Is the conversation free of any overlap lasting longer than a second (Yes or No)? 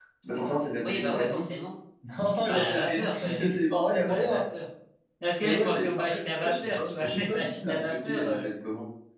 No